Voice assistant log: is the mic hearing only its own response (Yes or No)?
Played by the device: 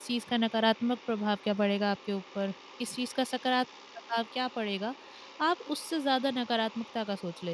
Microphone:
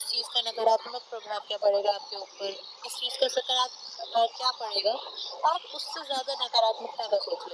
Yes